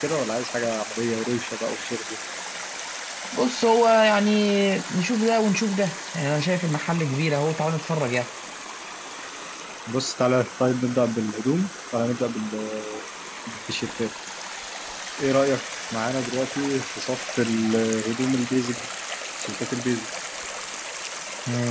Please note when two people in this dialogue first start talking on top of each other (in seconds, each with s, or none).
none